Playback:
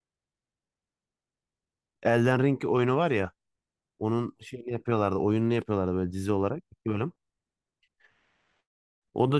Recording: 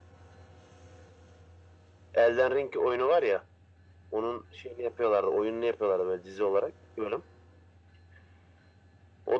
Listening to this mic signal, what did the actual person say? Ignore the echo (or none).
none